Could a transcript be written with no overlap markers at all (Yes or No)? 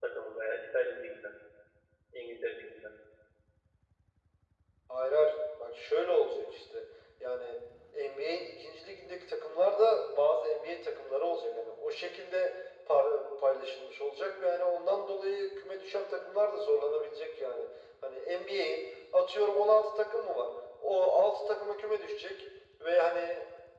Yes